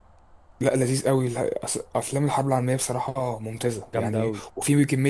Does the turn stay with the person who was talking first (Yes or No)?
Yes